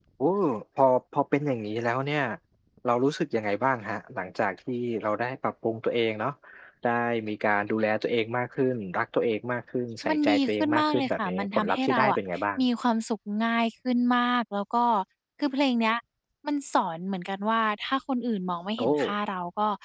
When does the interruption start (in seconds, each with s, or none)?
10.1 s